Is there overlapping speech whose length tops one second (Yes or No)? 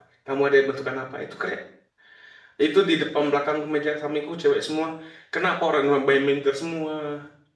No